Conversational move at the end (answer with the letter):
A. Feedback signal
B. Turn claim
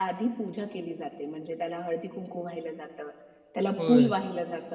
A